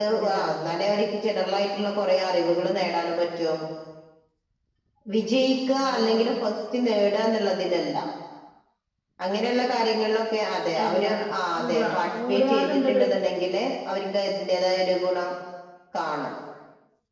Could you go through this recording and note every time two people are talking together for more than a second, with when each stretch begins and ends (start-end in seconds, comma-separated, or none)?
11.6-13.1